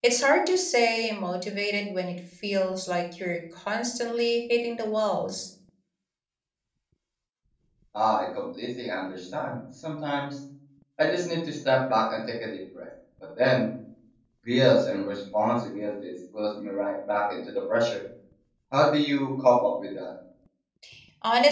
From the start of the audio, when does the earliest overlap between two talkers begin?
none

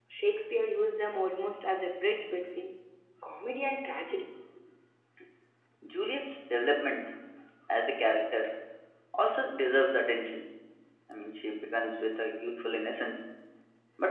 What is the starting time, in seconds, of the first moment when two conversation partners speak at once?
none

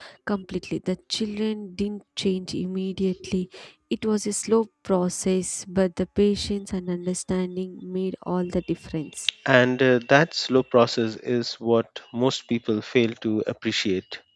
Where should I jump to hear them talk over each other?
none

